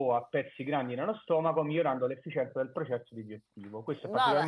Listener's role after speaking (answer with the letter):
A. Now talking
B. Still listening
B